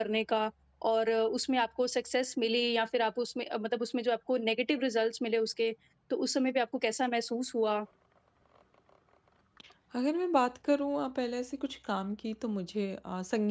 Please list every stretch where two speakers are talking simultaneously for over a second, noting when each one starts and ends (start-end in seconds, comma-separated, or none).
none